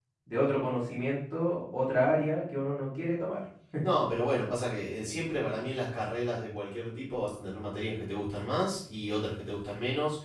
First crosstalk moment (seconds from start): none

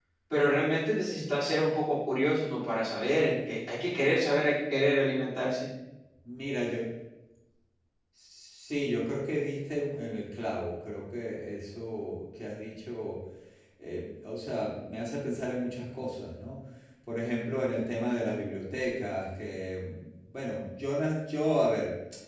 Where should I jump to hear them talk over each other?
none

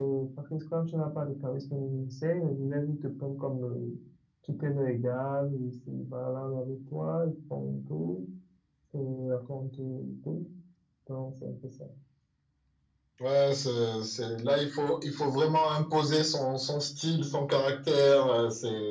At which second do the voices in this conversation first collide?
none

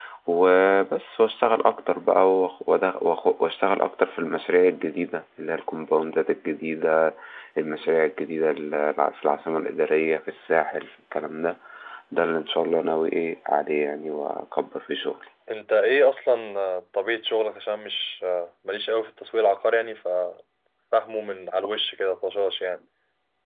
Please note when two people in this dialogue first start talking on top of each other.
none

